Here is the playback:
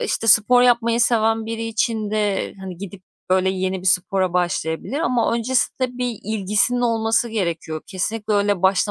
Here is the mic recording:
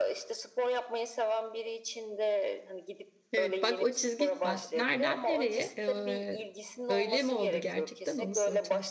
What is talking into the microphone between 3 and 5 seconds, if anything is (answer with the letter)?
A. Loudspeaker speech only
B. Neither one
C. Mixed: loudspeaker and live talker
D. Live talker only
C